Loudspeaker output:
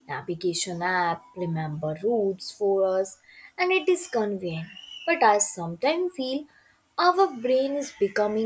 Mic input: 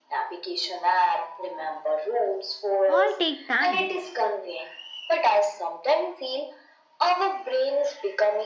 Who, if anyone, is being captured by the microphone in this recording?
both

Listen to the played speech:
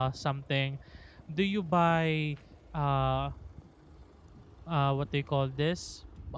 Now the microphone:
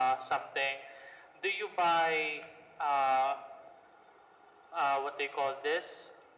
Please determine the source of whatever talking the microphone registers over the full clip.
echo only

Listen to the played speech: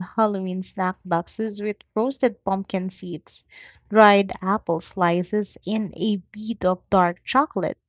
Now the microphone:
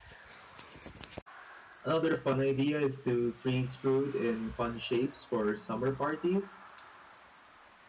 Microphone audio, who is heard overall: user only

